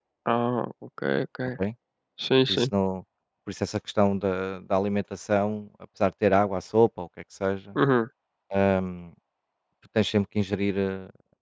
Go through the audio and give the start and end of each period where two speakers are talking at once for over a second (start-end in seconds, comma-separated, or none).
none